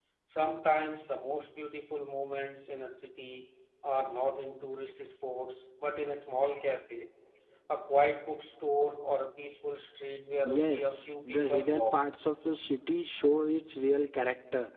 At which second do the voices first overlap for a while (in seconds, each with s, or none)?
10.4 s